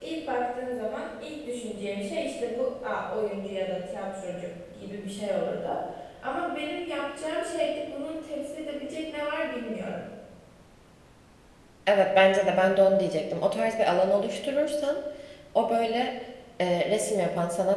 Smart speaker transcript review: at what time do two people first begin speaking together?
none

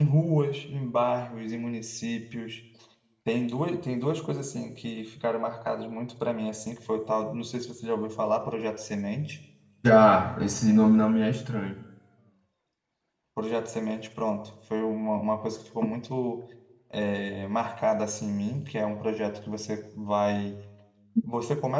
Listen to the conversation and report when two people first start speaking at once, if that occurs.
none

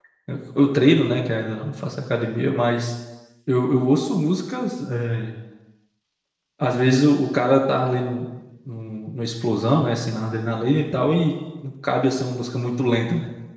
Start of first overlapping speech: none

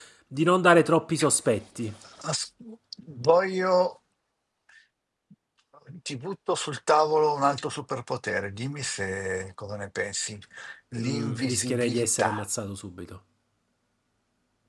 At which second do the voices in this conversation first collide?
11.0 s

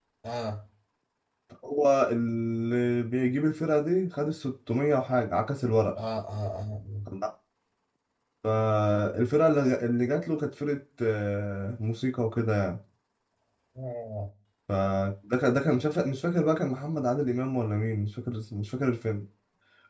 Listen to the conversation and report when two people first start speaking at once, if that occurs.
none

